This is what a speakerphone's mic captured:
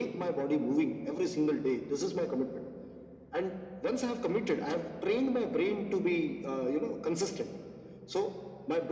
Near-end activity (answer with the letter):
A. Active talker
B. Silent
B